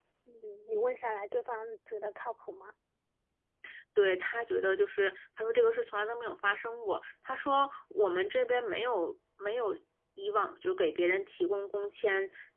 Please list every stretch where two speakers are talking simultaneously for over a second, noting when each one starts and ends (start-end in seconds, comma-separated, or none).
none